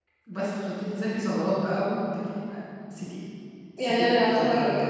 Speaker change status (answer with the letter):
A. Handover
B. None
A